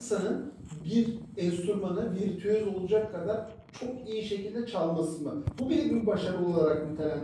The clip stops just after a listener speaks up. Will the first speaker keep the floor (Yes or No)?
Yes